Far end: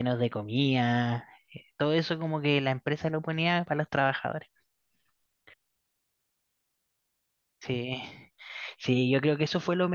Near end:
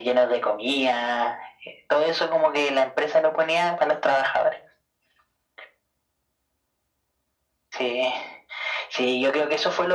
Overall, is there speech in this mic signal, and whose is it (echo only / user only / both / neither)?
echo only